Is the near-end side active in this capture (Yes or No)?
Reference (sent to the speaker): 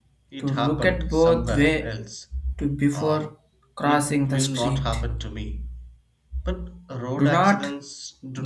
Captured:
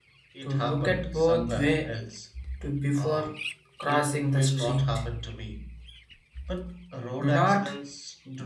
No